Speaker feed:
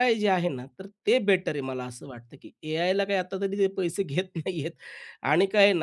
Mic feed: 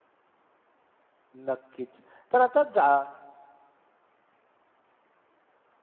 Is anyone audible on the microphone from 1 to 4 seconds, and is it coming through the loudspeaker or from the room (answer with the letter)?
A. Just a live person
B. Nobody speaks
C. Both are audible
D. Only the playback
A